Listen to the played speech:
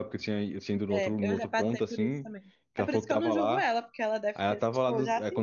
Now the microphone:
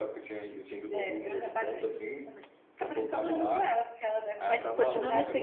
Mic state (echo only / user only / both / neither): both